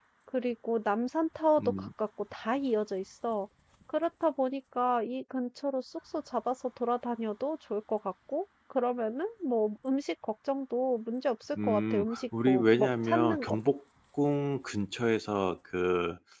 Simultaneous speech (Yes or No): Yes